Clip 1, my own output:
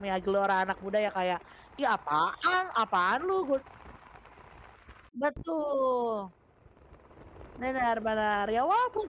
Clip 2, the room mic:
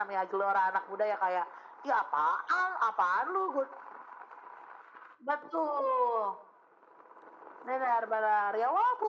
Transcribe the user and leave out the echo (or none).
none